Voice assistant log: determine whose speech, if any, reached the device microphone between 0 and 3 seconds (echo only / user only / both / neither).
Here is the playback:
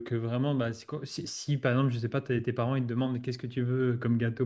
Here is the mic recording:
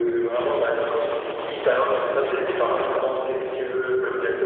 echo only